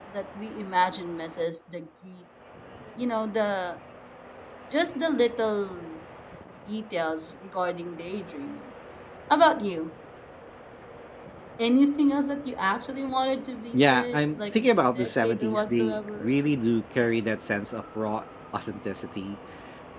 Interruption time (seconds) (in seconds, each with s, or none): 13.7 s